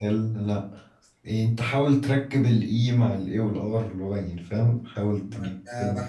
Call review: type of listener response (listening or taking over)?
taking over